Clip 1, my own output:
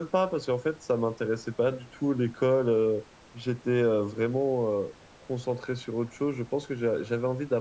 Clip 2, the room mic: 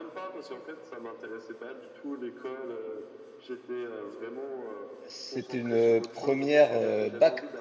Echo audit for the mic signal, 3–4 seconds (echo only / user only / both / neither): echo only